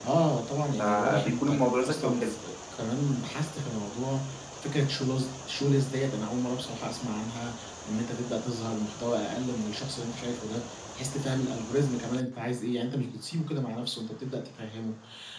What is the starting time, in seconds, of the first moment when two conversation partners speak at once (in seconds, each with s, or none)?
0.8 s